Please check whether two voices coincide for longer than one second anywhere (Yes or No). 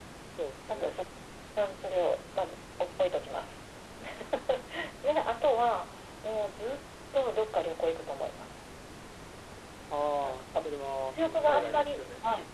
Yes